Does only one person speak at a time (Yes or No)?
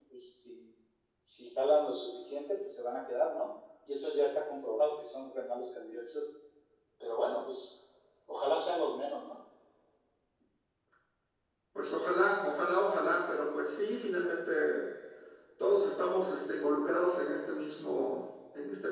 Yes